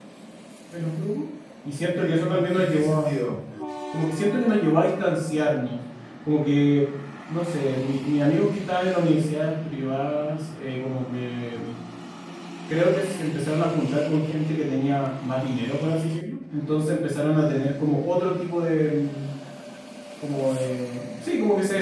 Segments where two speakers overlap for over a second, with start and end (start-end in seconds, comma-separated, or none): 1.9-3.2